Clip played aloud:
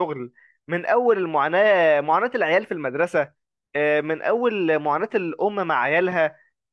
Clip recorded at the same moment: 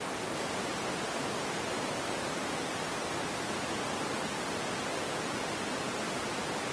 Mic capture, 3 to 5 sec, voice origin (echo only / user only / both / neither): neither